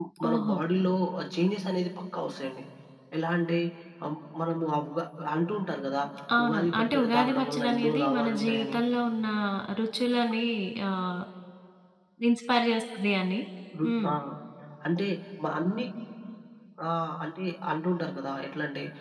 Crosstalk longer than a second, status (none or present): present